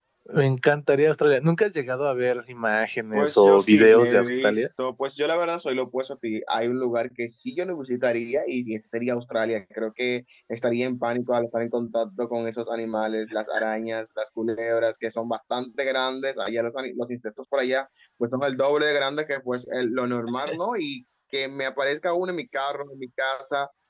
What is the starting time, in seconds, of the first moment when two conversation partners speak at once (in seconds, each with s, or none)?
3.1 s